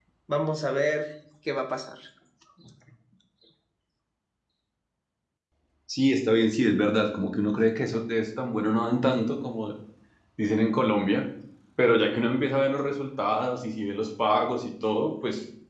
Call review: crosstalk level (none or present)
none